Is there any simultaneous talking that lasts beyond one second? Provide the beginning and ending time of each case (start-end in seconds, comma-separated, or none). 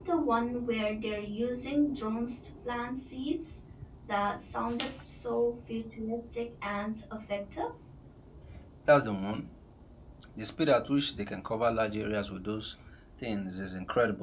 none